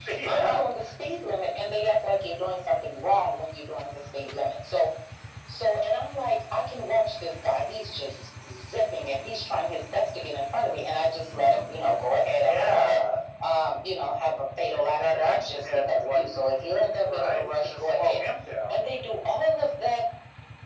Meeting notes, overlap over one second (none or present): present